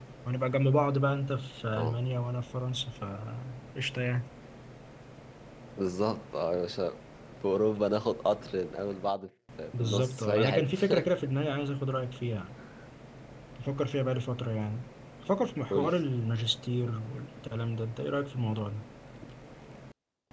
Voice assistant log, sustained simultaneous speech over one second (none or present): present